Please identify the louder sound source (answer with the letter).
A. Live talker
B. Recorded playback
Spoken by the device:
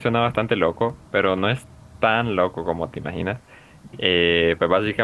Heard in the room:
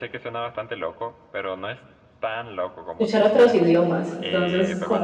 A